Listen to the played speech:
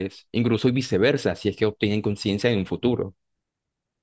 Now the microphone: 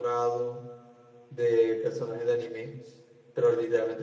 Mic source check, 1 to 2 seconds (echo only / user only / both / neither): user only